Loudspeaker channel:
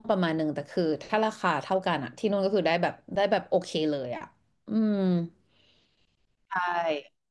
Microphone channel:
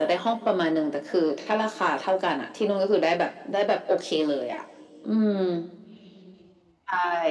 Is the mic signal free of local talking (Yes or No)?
Yes